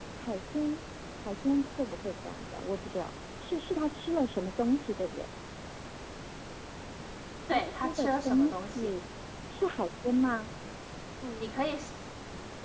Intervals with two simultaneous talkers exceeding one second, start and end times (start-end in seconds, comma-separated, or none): 7.5-8.9